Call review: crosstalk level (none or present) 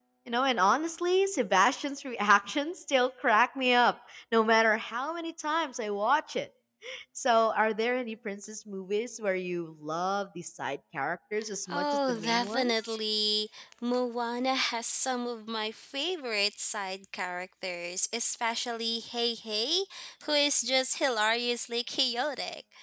present